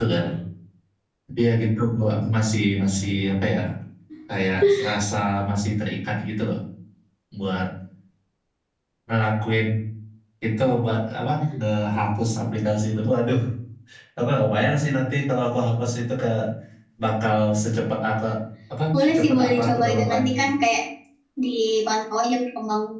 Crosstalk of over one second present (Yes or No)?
Yes